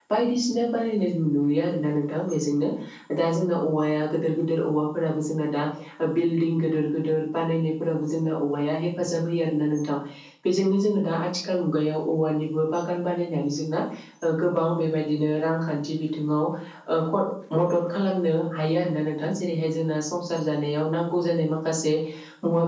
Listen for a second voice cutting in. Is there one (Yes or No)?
No